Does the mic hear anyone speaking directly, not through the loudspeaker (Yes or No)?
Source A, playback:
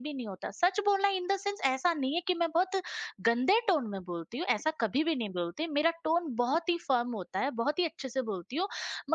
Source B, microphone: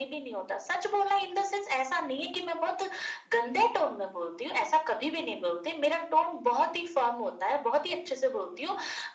No